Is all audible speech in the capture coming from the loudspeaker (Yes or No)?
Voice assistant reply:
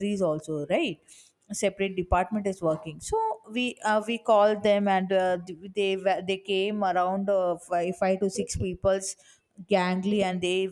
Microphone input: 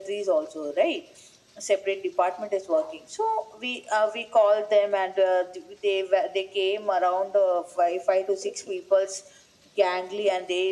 Yes